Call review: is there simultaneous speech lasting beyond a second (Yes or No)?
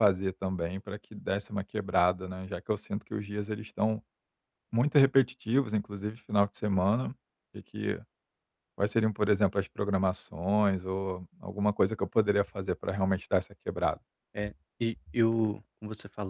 No